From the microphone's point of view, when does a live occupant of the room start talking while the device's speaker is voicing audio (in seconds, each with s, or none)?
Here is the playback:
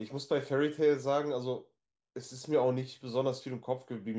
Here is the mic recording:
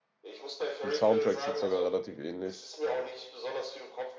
0.8 s